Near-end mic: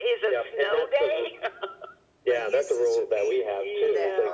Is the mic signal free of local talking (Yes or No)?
No